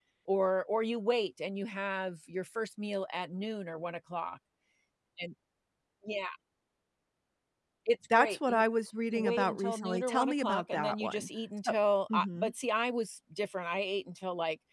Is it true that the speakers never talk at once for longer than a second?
No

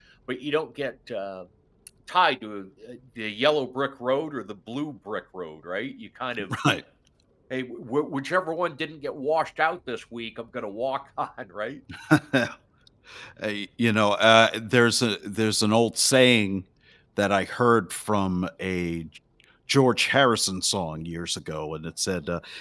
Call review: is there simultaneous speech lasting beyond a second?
No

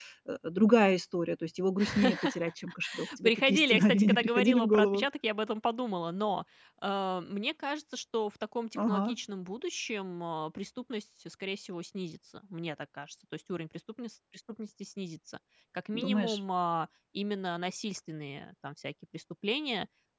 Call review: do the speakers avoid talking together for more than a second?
No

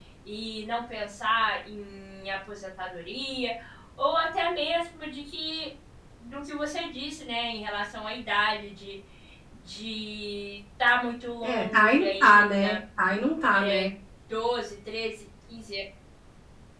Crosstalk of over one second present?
Yes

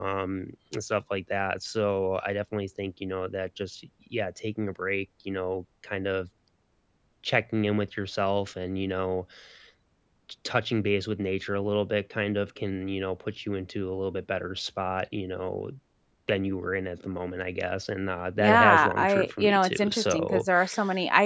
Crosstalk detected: Yes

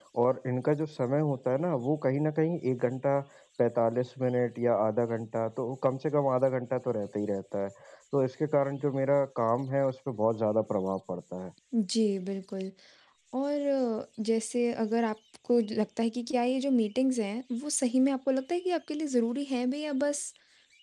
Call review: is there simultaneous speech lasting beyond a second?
No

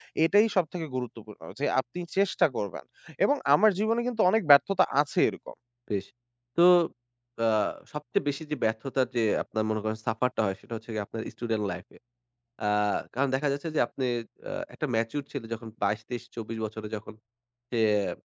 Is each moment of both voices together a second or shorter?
Yes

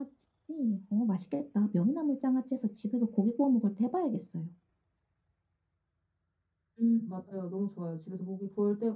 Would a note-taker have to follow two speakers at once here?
No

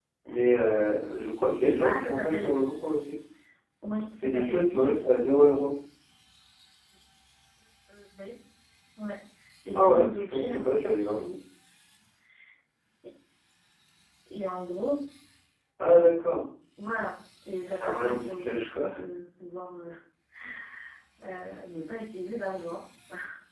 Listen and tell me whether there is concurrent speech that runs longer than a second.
Yes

